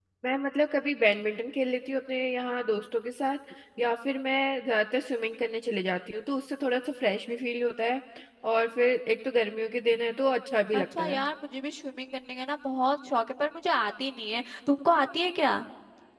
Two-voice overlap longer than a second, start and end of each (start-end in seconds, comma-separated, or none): none